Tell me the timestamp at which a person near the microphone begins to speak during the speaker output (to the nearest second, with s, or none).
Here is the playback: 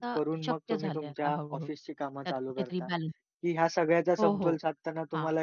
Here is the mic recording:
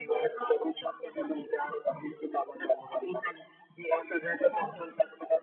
none